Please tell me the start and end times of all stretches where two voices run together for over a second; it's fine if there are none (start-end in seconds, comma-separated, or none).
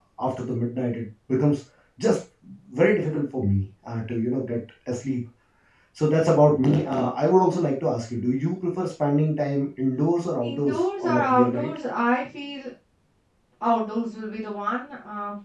10.4-11.7